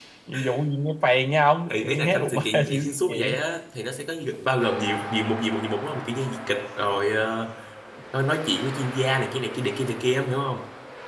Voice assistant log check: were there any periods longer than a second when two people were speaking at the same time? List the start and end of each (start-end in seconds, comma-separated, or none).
1.7-3.4